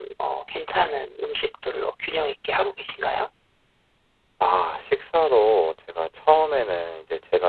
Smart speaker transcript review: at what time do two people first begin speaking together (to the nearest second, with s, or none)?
none